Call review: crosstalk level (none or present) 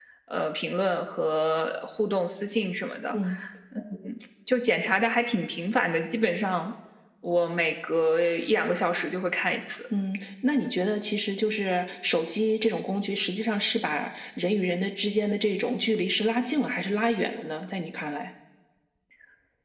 none